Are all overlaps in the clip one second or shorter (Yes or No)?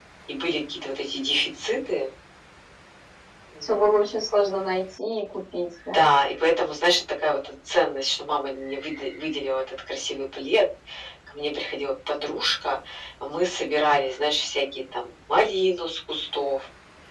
Yes